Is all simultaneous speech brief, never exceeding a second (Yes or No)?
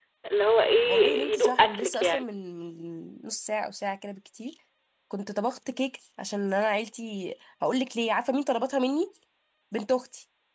No